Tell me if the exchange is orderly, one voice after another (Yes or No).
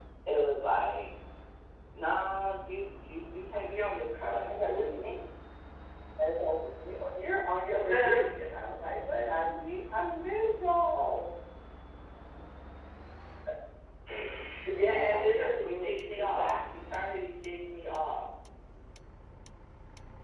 No